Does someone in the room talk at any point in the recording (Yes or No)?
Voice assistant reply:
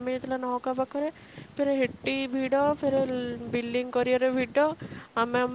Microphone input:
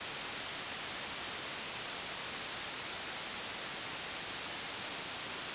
No